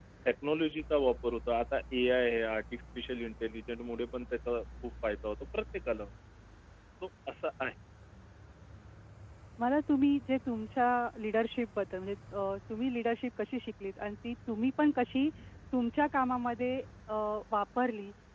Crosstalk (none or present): none